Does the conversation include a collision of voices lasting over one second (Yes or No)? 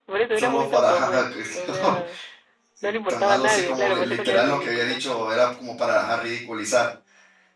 Yes